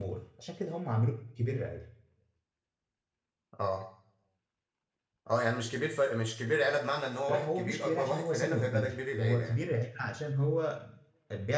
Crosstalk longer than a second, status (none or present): present